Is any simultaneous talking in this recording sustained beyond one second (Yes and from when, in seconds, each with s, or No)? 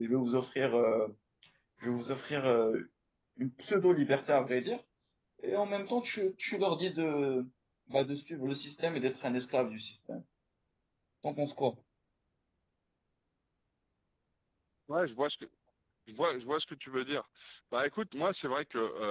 No